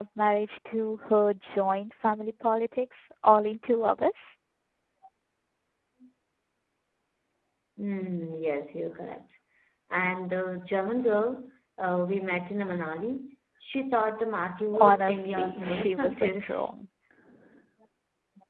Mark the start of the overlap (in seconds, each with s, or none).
14.7 s